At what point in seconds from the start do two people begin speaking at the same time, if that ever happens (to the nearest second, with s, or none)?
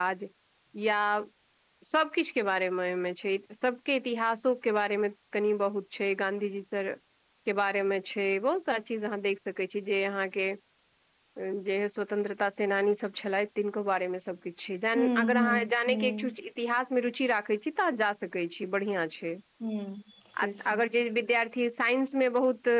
15 s